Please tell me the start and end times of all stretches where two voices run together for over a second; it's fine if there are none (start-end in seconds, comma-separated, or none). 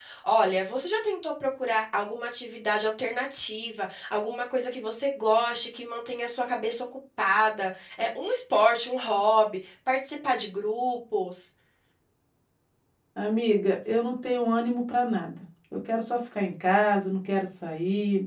none